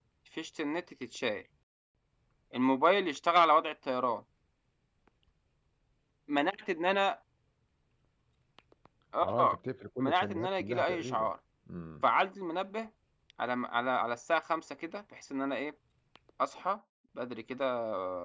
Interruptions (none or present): present